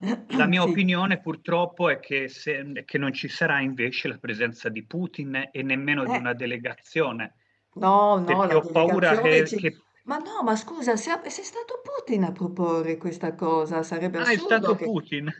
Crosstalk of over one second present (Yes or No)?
Yes